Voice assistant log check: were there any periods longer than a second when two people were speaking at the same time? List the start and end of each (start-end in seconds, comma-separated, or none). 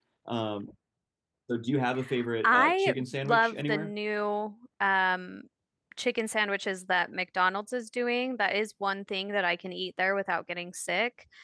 2.4-3.9